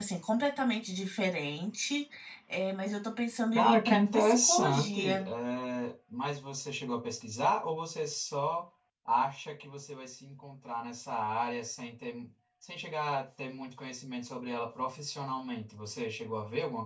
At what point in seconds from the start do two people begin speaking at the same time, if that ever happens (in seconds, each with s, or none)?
3.5 s